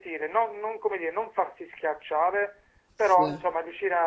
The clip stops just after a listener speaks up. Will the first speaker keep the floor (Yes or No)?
Yes